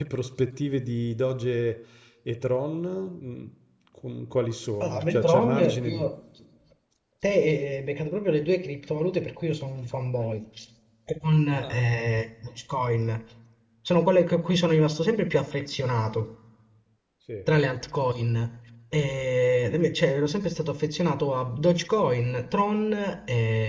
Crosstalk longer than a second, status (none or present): present